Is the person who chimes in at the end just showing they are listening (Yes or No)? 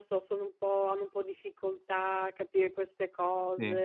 Yes